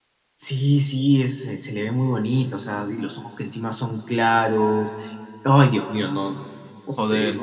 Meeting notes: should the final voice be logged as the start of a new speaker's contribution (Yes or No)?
Yes